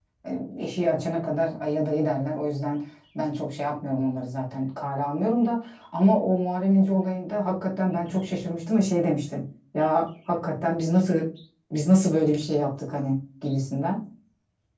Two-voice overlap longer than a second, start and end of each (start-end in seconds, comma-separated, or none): none